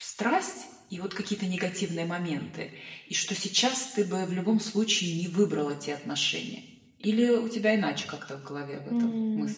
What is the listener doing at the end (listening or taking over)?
taking over